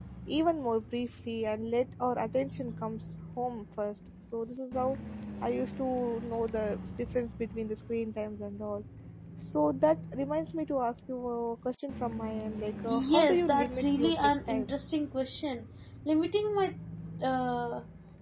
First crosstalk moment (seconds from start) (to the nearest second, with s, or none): 13 s